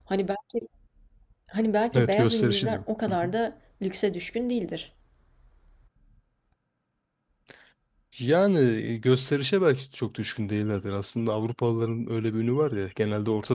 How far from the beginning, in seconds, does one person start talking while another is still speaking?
1.9 s

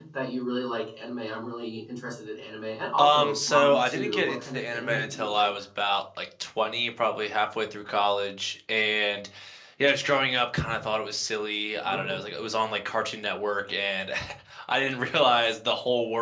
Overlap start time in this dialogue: 3.0 s

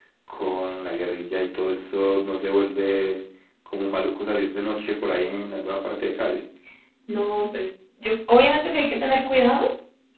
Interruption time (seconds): none

